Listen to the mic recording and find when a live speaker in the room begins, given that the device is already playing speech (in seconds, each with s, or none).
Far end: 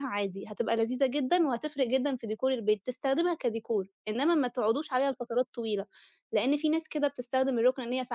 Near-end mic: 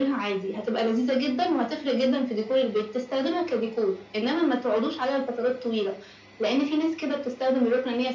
none